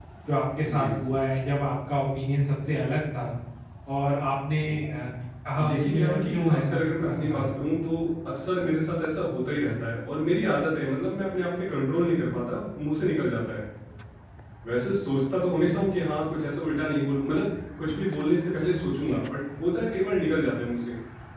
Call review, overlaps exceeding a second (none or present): present